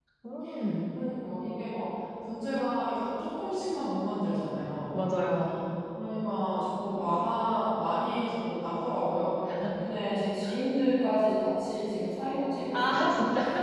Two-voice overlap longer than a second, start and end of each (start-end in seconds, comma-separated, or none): none